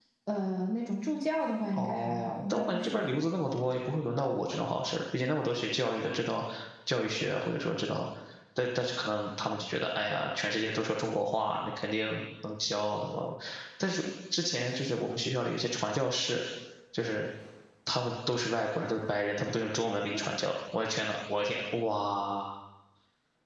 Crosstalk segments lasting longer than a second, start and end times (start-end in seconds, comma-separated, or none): 1.7-3.3